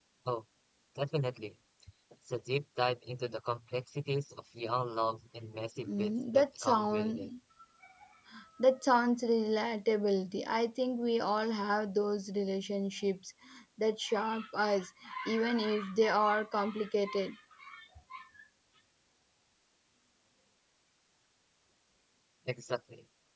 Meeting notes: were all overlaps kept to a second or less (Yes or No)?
No